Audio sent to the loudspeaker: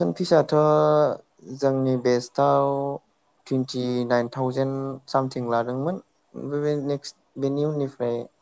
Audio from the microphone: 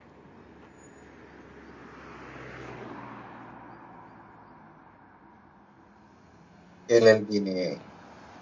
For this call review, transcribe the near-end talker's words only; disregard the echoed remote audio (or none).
एल एल बि नि